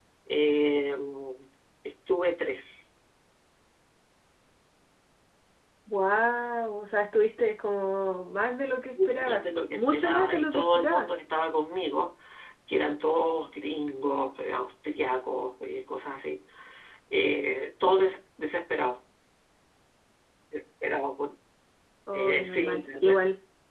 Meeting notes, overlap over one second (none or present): present